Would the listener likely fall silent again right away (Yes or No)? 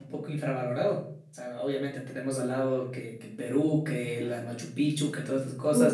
Yes